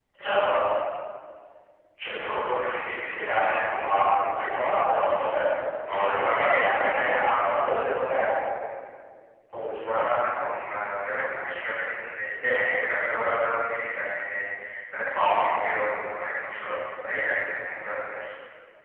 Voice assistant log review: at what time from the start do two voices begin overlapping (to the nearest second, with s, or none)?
6 s